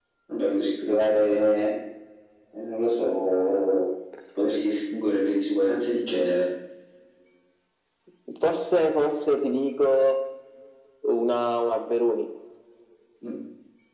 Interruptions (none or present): none